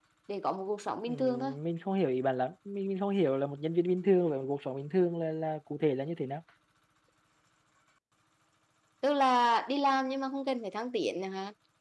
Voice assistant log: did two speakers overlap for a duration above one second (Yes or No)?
No